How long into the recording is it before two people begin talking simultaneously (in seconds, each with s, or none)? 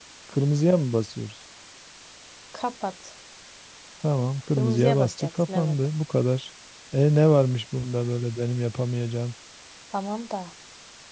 4.6 s